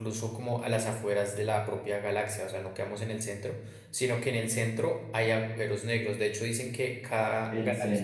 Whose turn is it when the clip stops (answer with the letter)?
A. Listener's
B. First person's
A